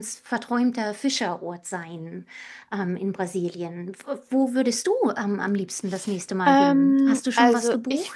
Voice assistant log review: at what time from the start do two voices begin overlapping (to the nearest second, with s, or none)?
6 s